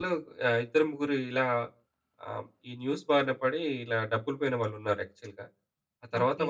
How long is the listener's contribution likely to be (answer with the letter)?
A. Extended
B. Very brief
B